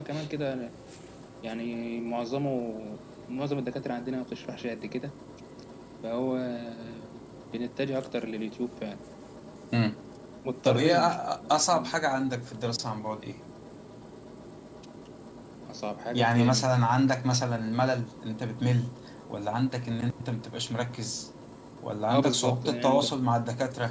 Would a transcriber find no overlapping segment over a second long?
No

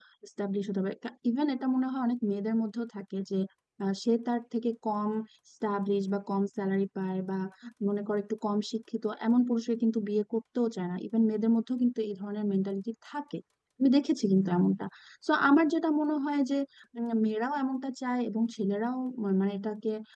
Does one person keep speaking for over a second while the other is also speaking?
No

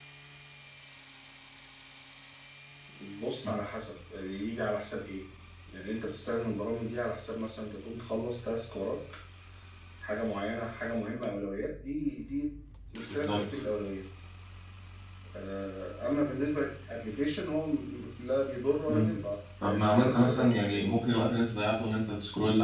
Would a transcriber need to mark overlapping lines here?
Yes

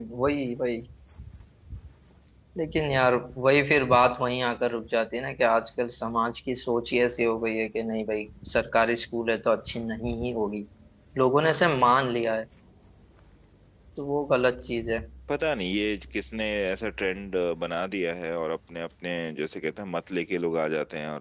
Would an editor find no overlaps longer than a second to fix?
Yes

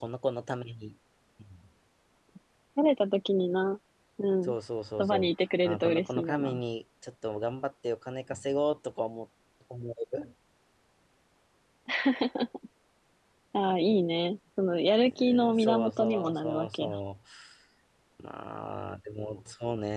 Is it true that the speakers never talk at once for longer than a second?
No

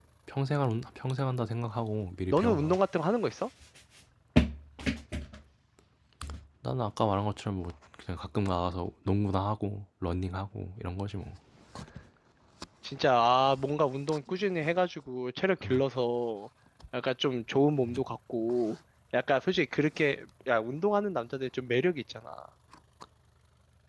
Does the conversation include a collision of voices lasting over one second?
No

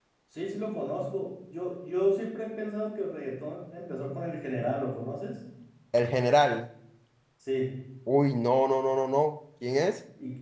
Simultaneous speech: No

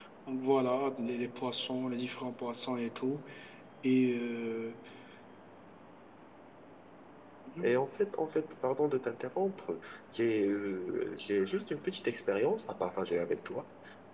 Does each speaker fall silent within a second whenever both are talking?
Yes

